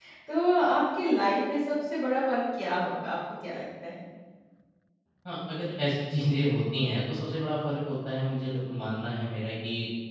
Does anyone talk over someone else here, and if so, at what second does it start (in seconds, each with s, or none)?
none